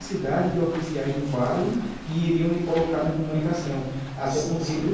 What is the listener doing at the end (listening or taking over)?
listening